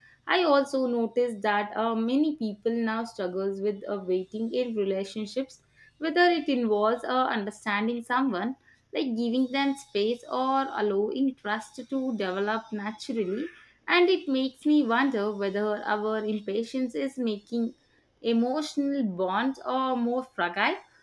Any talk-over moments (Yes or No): No